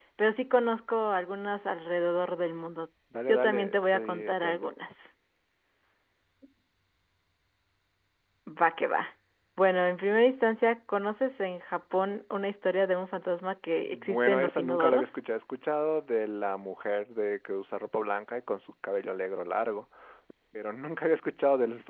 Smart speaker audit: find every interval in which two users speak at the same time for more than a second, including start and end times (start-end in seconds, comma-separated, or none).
3.3-4.7, 13.9-15.1